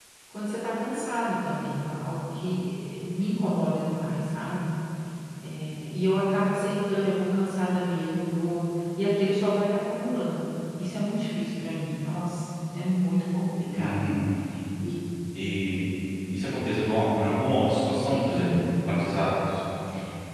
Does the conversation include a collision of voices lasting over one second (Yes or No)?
No